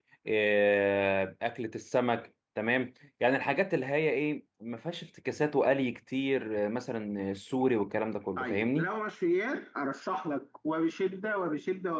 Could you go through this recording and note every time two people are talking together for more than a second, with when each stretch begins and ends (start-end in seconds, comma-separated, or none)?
none